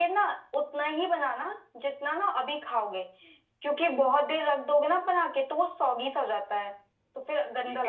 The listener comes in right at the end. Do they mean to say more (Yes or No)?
Yes